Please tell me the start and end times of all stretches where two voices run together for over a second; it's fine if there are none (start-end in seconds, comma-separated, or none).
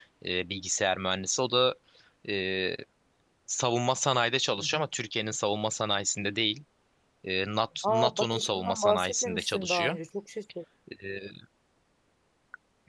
7.8-10.0